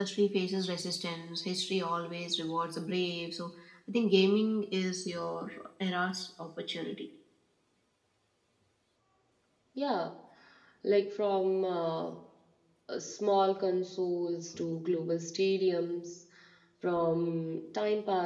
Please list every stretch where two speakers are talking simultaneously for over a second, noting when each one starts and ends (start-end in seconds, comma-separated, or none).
none